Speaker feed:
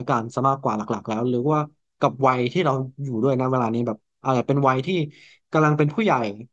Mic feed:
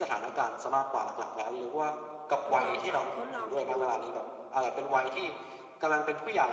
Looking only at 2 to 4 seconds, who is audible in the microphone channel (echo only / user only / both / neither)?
both